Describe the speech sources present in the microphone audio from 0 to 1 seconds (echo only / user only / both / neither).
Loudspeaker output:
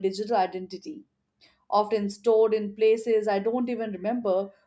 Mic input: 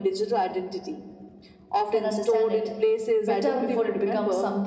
echo only